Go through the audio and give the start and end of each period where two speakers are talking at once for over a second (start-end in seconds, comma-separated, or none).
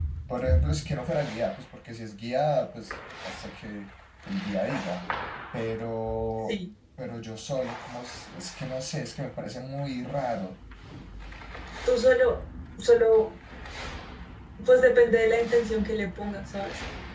none